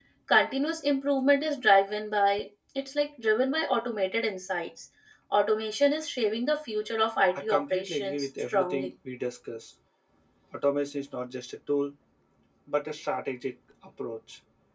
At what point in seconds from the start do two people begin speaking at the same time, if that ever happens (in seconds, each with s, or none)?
7.3 s